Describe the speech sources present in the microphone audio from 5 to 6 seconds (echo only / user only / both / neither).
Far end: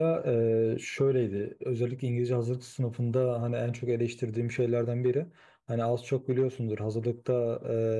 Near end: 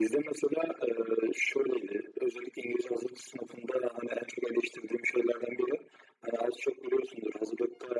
echo only